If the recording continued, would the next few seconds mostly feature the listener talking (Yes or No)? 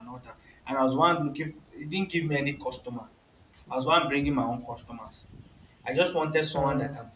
No